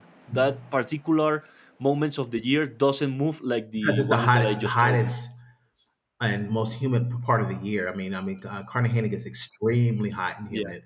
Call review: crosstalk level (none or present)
present